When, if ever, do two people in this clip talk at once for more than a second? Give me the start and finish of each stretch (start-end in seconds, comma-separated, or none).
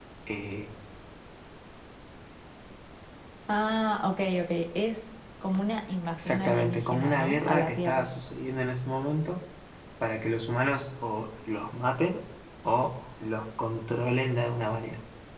6.2-8.1